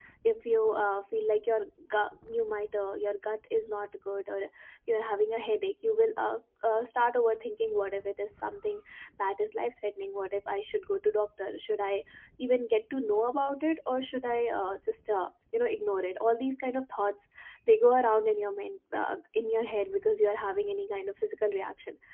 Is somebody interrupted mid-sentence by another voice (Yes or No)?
No